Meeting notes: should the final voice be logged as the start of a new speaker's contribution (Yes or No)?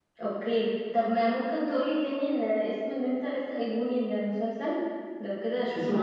Yes